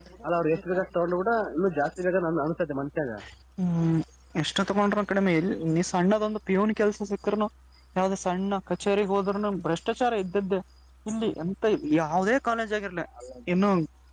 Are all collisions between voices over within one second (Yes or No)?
Yes